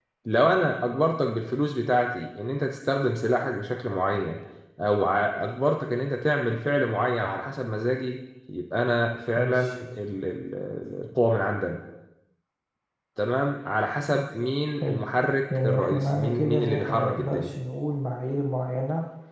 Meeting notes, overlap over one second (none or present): present